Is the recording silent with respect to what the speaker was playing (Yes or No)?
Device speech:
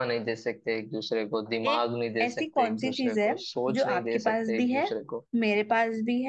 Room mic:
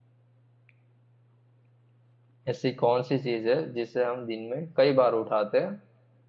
Yes